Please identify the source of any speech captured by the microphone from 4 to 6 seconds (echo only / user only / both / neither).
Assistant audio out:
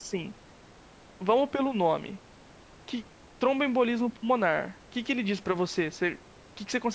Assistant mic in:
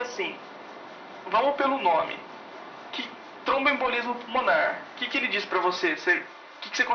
echo only